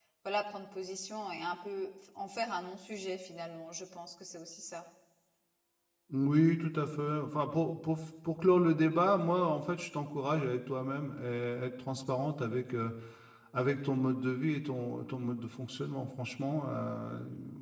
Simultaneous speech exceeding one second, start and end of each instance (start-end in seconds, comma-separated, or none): none